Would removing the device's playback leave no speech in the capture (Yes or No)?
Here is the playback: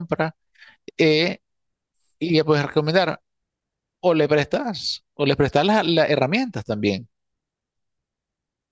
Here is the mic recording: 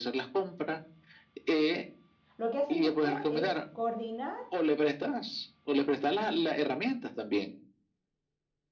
No